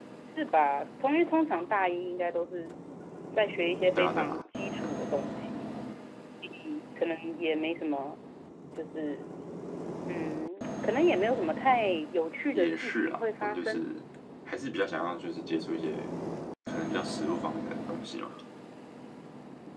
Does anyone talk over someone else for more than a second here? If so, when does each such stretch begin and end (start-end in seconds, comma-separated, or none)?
12.5-13.9